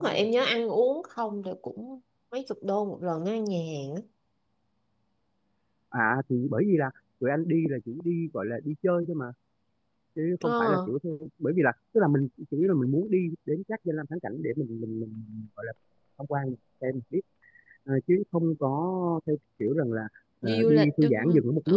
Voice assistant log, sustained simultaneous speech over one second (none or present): present